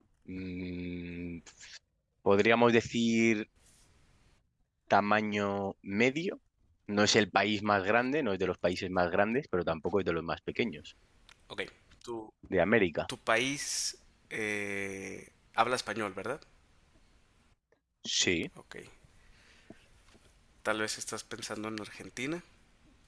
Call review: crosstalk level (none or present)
none